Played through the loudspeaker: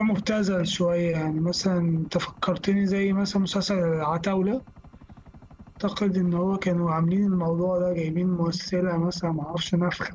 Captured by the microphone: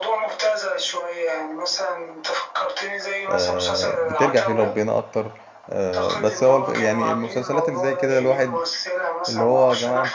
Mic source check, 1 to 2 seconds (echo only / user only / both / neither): echo only